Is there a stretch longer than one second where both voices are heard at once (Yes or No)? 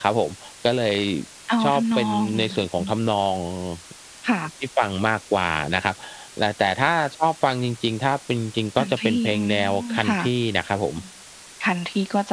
Yes